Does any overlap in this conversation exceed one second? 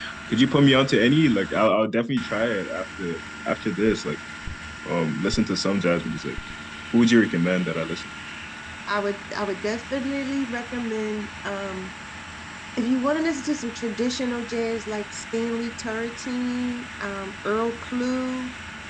No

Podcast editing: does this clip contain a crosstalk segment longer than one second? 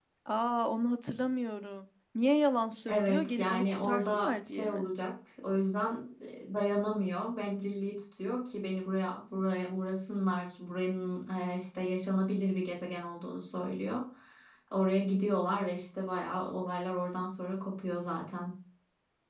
Yes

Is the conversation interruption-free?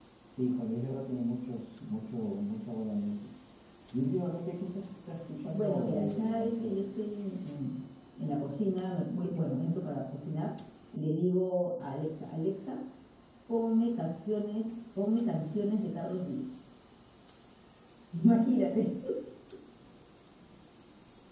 No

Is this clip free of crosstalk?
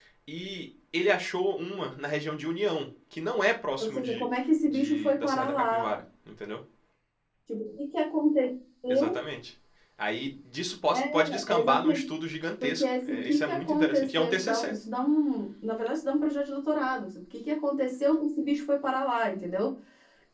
No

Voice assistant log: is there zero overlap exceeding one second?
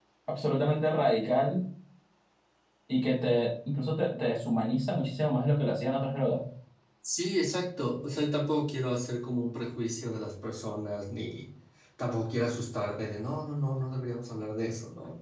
Yes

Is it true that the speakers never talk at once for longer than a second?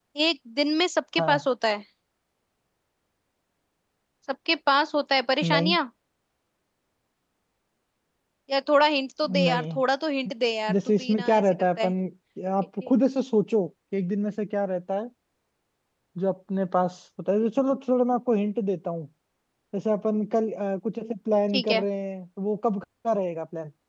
No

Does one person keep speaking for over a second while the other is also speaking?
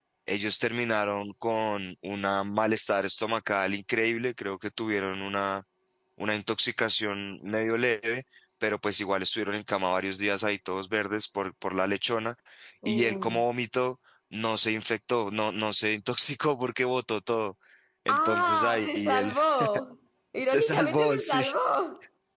Yes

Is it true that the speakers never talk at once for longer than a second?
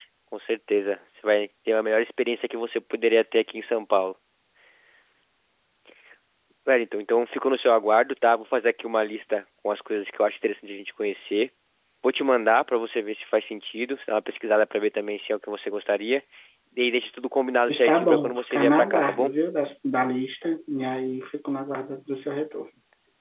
No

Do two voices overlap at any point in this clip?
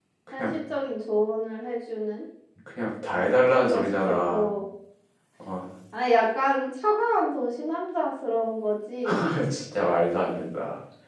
Yes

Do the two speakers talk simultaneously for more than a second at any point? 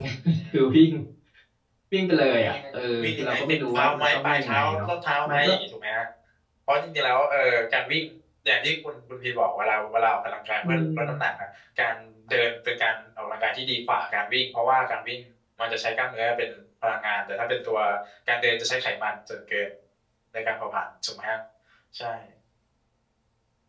Yes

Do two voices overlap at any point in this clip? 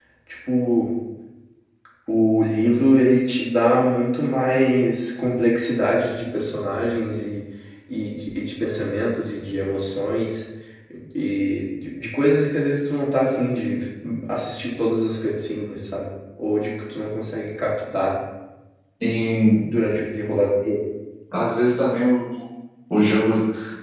No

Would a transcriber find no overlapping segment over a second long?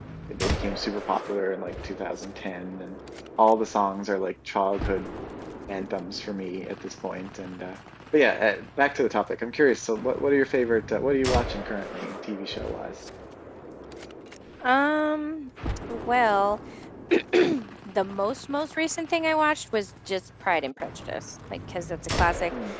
Yes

